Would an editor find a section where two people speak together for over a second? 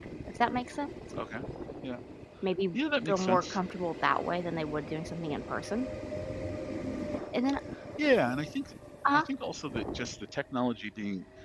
No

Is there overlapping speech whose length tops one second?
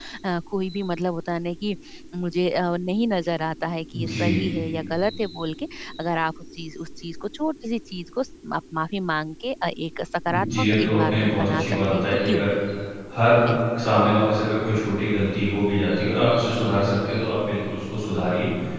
Yes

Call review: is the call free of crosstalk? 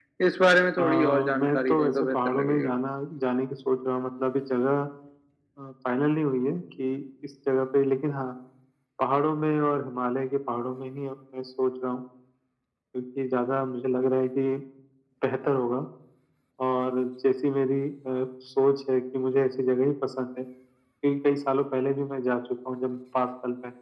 No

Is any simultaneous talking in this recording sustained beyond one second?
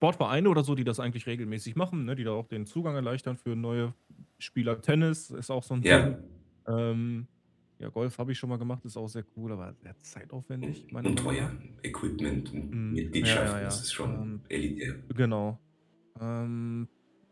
Yes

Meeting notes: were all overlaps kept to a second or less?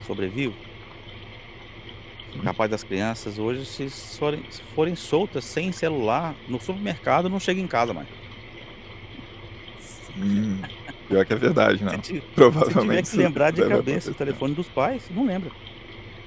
No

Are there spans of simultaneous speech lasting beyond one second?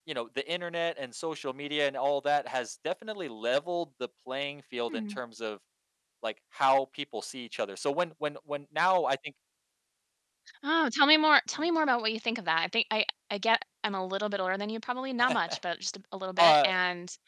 No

